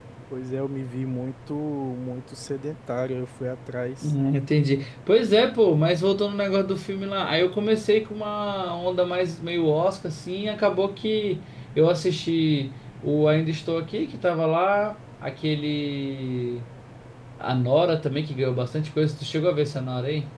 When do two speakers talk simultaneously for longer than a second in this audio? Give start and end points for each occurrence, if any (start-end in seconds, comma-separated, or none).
none